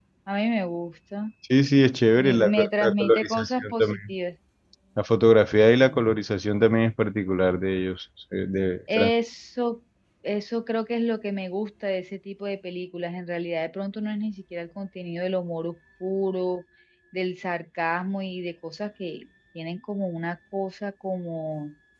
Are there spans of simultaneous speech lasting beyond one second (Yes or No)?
Yes